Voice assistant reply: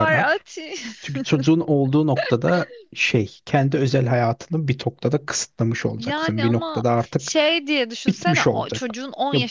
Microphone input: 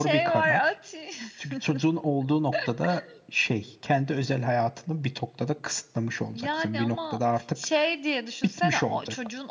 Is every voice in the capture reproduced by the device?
Yes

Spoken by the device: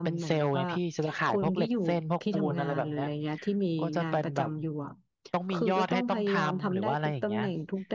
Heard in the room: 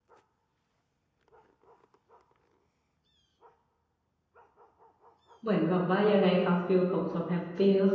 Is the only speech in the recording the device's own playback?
No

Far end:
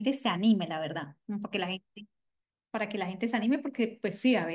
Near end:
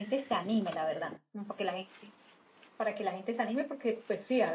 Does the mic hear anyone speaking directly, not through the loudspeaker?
No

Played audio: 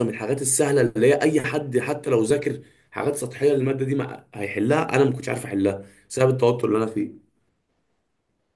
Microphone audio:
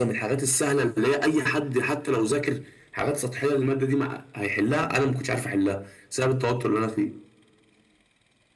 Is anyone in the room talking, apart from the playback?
No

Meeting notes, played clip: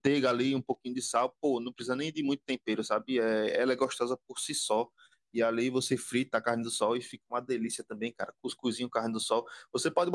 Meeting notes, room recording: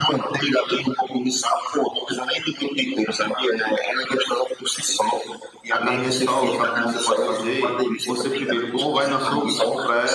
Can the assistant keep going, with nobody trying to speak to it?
No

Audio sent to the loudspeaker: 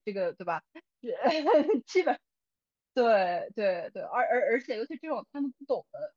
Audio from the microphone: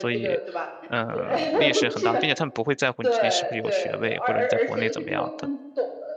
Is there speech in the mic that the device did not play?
Yes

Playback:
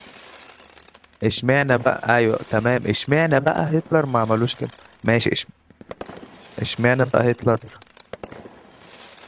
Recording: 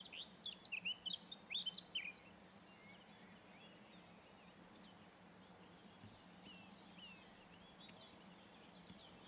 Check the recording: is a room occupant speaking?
No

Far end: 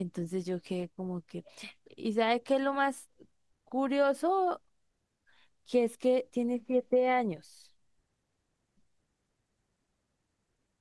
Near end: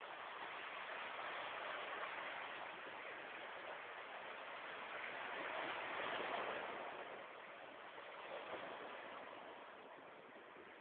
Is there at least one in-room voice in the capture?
No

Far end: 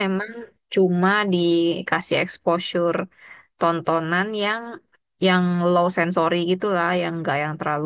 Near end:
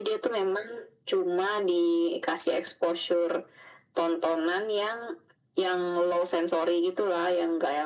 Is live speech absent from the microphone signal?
Yes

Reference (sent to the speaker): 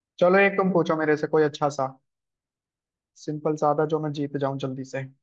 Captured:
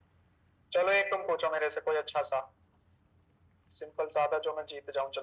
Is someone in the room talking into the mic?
No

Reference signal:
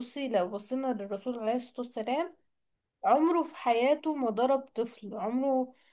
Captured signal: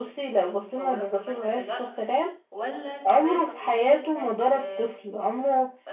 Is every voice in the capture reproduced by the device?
No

